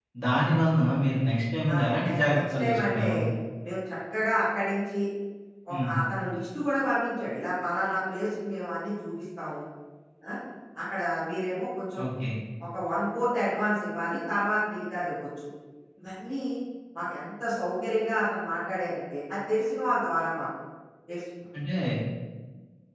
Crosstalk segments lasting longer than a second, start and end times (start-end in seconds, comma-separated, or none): 1.7-3.1